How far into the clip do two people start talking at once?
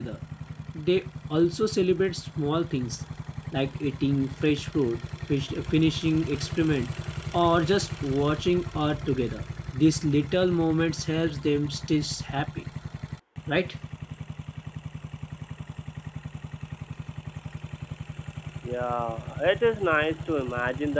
none

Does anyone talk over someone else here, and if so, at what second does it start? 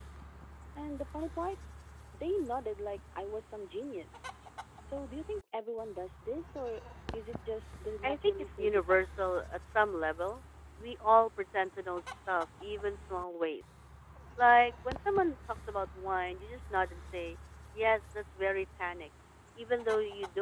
8 s

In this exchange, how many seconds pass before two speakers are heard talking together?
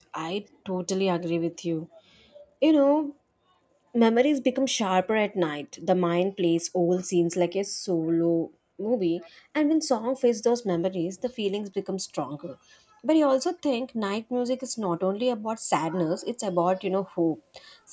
none

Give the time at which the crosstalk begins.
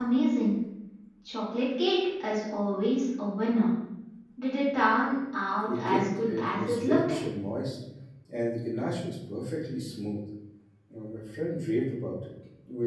6 s

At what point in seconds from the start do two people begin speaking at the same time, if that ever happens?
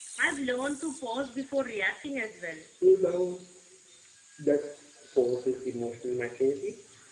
none

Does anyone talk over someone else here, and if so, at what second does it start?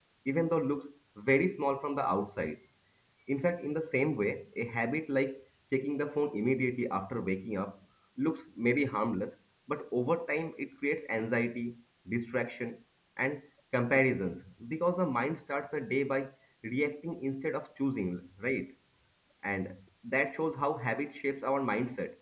none

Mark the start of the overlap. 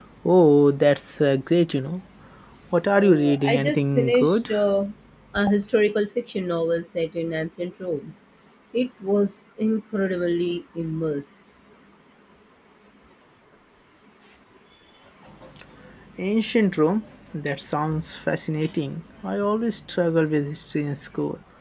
3 s

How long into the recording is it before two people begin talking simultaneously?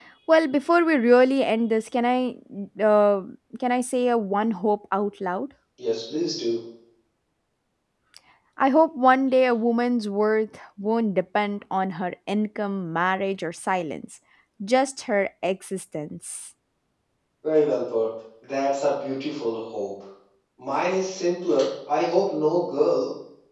none

